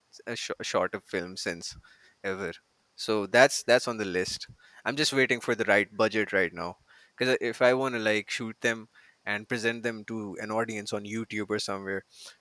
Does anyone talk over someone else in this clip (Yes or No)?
No